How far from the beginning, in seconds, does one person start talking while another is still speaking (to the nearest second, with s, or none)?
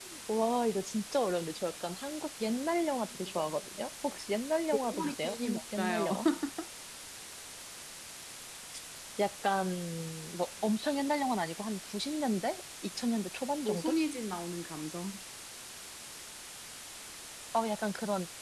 5 s